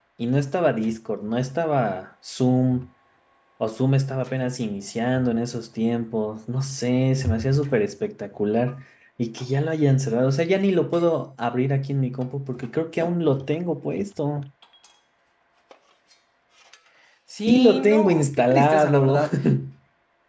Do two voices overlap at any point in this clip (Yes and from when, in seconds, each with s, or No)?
Yes, from 17.5 s